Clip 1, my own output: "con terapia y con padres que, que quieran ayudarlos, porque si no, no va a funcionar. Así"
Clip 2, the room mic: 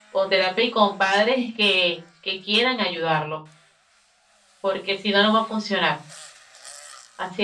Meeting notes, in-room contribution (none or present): none